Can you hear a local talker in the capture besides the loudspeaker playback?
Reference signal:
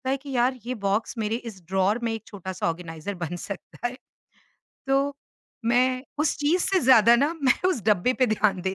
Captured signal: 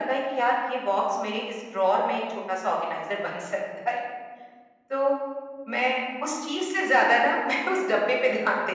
No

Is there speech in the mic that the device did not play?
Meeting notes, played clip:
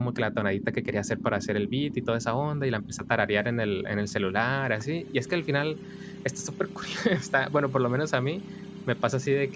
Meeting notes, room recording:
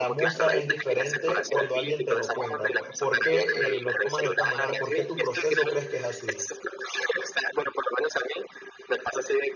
Yes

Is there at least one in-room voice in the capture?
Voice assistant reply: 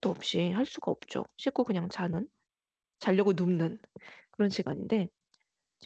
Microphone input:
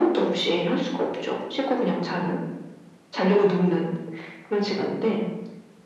No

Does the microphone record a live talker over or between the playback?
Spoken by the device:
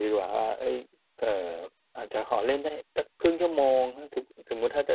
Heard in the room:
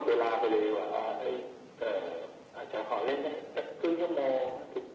No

